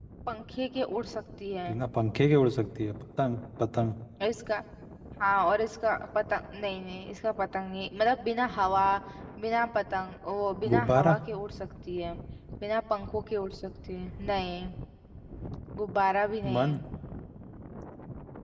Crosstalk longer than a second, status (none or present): none